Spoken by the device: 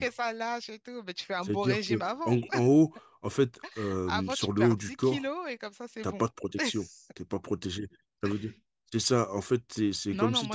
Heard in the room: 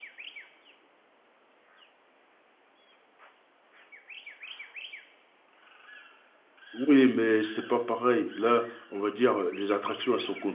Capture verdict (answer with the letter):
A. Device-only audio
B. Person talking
B